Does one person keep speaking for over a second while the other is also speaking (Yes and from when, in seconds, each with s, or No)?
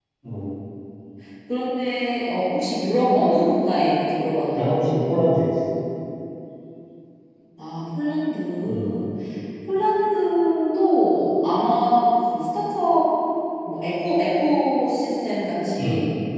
No